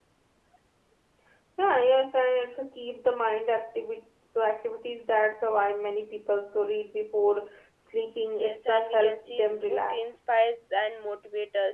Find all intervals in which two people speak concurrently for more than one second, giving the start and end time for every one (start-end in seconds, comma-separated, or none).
8.4-10.2